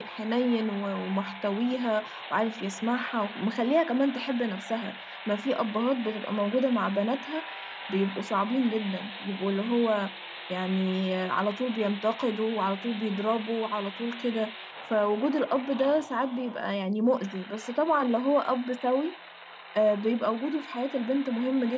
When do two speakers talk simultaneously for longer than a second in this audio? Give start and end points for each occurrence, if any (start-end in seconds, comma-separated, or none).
none